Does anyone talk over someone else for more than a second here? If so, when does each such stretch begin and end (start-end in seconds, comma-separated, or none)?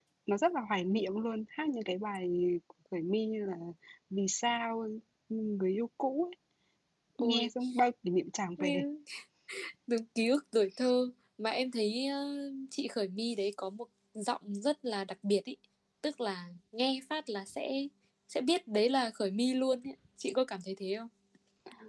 none